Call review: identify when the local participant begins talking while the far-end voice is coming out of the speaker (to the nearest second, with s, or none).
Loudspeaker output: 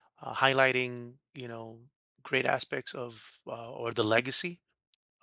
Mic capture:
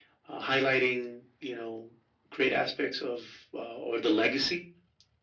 none